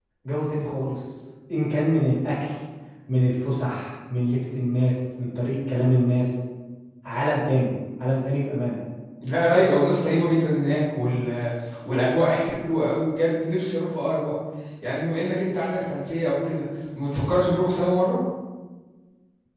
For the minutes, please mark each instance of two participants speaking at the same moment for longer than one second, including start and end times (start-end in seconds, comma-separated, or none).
none